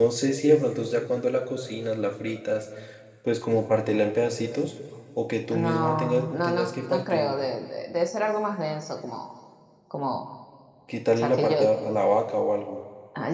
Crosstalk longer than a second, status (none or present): present